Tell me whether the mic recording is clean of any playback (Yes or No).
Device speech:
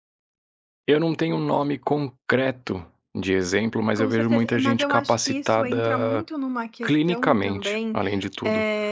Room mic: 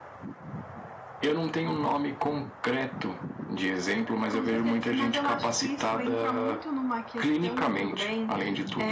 No